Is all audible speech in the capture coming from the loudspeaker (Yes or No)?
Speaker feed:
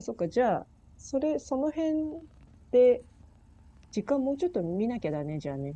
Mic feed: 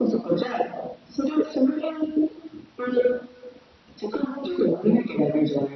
Yes